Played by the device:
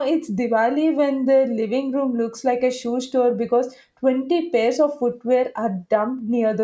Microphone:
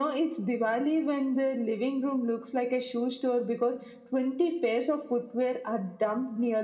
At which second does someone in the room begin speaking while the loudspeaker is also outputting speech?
none

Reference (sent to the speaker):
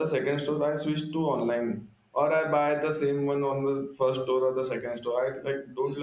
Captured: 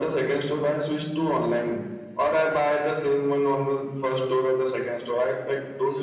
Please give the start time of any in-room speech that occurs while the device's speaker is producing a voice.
none

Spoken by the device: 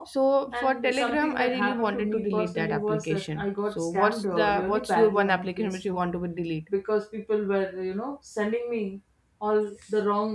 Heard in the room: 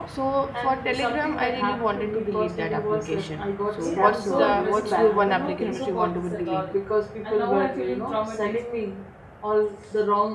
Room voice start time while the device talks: 3.8 s

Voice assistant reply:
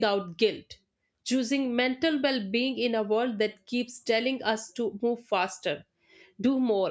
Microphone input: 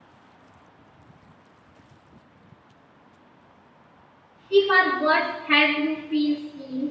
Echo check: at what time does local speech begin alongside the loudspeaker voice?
4.5 s

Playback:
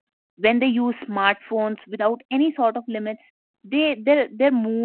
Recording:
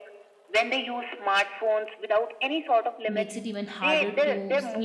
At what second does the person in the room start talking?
3.0 s

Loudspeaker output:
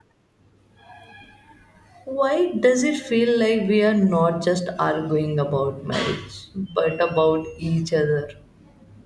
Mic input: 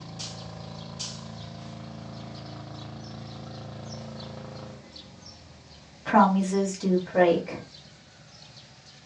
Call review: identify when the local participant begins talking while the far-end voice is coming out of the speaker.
6.0 s

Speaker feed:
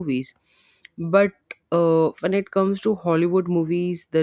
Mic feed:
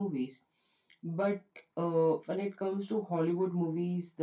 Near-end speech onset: none

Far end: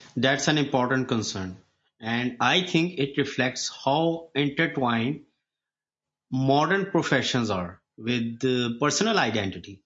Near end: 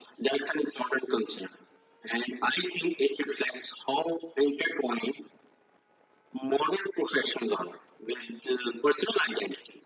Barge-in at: none

